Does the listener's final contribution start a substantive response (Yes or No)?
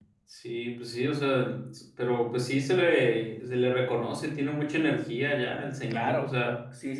Yes